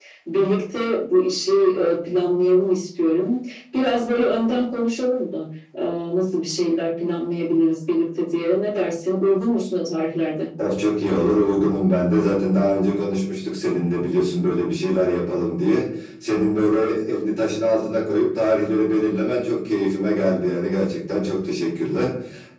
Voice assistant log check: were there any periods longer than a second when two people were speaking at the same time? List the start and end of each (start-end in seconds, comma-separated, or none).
none